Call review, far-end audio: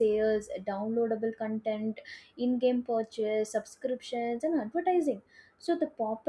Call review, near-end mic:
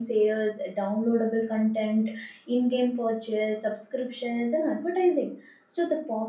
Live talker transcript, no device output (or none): none